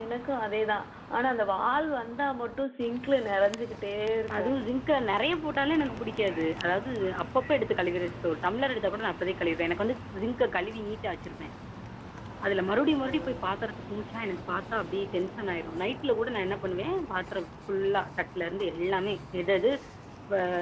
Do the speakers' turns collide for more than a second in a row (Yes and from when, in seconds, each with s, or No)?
No